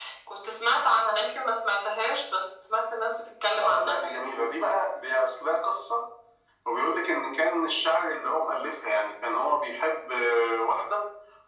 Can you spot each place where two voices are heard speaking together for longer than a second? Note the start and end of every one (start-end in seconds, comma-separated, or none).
none